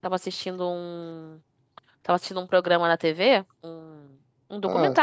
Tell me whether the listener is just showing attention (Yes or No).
Yes